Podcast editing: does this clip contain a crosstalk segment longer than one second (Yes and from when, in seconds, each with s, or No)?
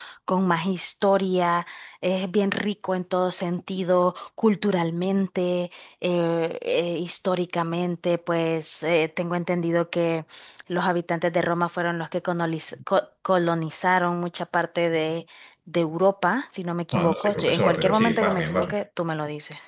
Yes, from 16.9 s